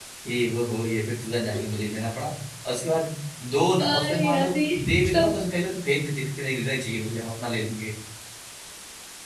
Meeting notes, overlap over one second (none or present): present